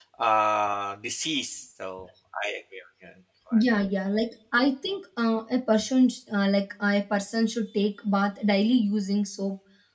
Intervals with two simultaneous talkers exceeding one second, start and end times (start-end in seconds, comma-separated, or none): none